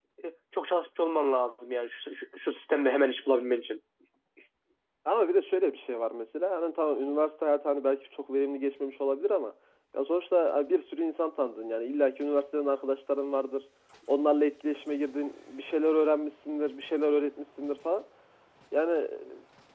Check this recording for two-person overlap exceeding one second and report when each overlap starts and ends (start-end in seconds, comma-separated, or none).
none